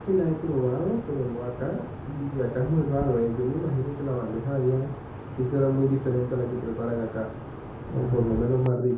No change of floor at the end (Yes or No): Yes